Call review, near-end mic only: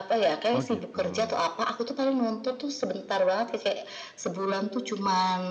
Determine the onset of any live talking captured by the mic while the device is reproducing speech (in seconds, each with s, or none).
0.5 s